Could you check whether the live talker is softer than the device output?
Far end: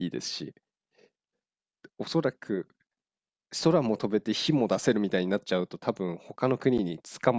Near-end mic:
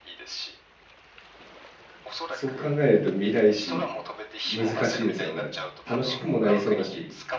No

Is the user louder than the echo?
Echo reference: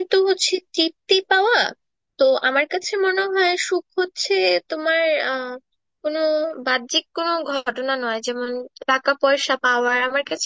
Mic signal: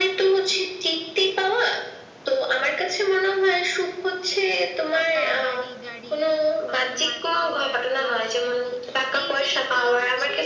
No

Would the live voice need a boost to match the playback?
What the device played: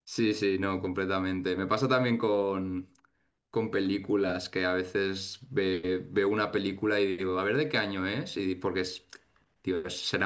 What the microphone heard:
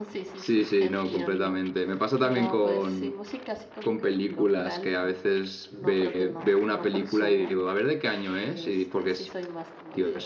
Yes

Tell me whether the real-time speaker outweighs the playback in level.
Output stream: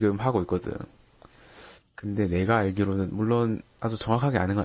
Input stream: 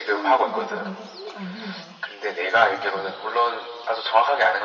No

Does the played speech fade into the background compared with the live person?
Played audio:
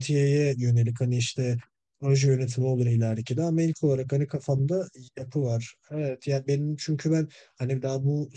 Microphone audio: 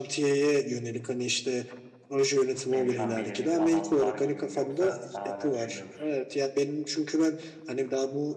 No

